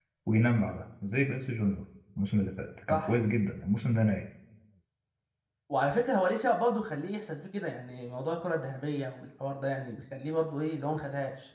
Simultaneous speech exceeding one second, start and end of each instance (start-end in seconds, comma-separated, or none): none